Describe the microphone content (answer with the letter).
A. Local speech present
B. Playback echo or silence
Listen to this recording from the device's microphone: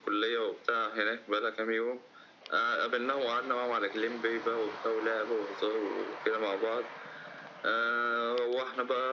B